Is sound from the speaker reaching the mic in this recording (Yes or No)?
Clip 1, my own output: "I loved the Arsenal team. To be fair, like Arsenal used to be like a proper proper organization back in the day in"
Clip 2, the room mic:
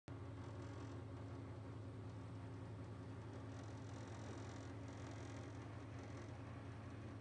No